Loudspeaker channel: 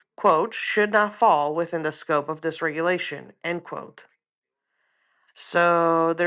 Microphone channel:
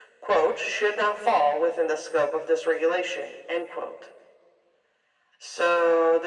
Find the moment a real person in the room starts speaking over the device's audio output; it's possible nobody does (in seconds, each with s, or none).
none